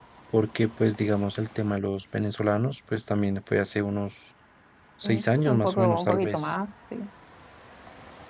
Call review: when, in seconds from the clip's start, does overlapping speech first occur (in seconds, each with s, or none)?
5.0 s